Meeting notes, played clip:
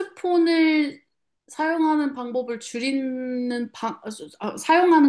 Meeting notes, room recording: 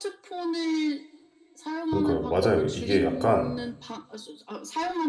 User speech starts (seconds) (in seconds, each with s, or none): 1.9 s